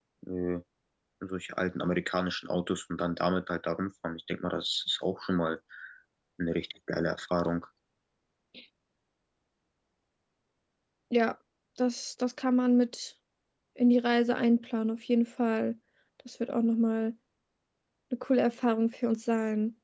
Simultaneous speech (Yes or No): No